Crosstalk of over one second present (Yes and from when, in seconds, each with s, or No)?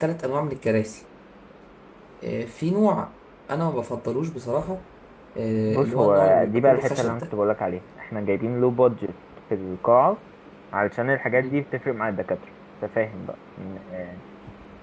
Yes, from 5.7 s